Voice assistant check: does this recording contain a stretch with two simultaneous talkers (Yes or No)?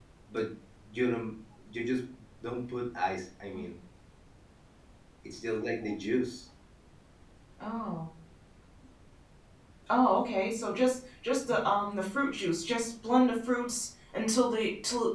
No